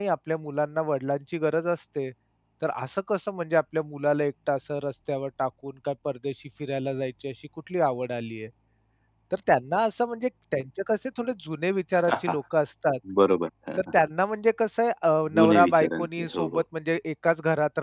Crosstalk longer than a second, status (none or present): present